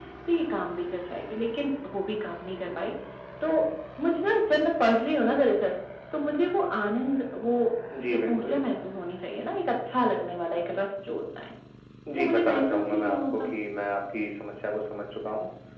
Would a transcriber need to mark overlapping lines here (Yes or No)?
Yes